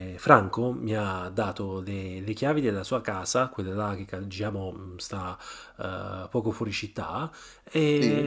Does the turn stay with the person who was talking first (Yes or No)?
Yes